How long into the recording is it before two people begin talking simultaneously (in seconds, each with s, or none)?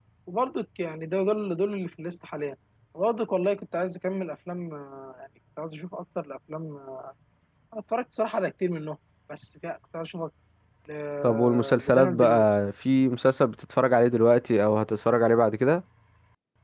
11.2 s